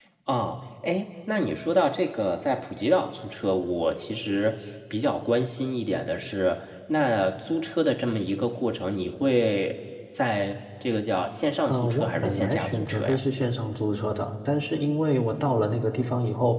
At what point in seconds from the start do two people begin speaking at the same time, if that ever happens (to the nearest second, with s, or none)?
12 s